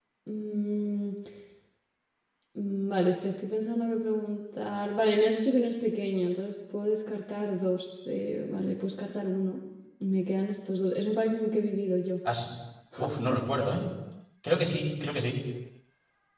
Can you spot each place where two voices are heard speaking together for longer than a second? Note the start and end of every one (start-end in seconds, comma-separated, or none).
none